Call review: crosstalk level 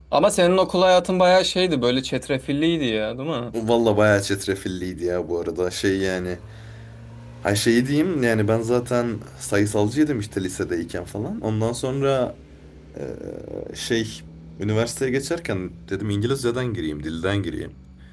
none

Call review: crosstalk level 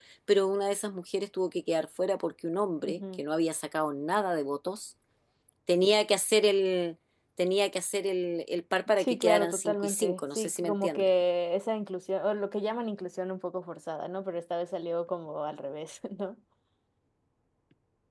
present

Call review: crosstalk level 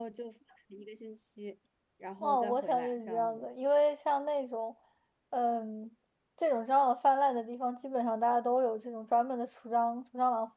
present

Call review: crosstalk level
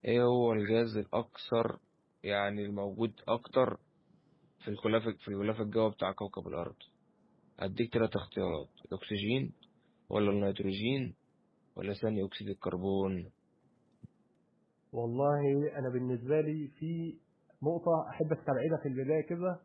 none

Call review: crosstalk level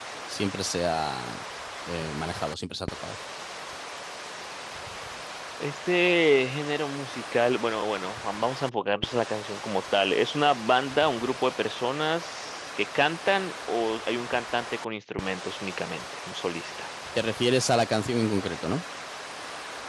none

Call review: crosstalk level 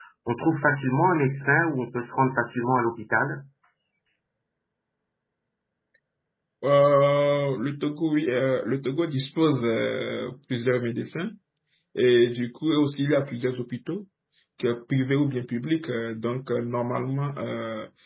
none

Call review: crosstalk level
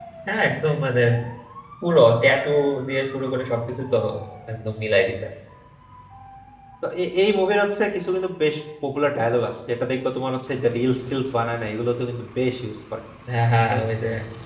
none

